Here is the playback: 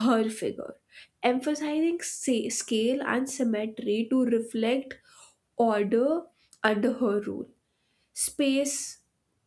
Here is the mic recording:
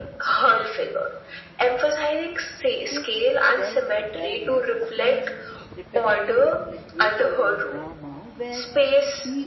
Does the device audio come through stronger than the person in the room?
Yes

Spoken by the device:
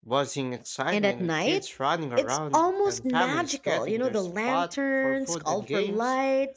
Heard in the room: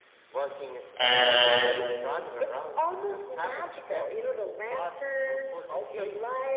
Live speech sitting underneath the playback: No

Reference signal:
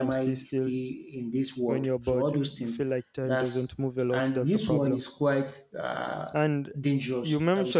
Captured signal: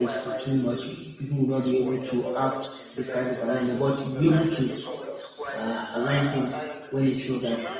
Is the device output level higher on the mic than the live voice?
No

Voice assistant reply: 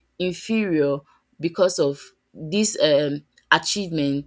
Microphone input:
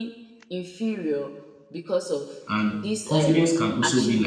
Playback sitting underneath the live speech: Yes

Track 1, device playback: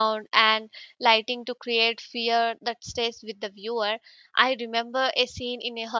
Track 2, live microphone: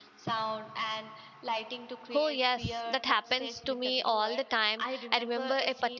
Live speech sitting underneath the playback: No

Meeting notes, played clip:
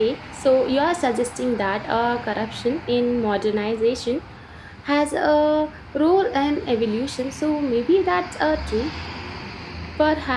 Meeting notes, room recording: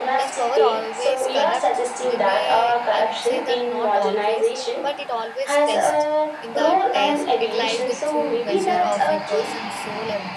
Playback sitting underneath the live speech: No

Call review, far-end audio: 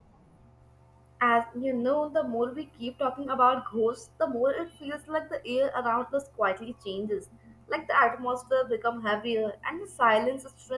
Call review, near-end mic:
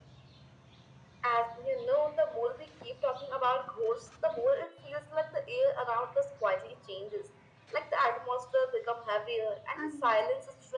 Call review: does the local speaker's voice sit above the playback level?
No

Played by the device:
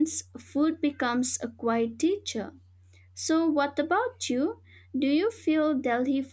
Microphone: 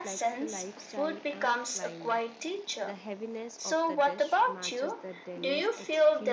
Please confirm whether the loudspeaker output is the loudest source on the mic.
Yes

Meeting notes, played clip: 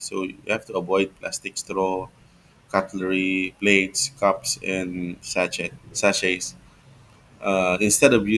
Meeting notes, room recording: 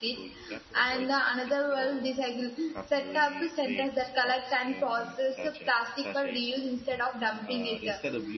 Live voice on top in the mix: Yes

